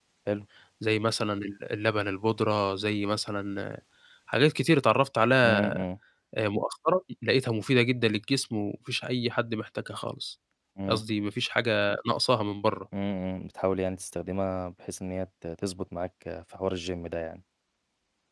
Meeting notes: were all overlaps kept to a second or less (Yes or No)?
Yes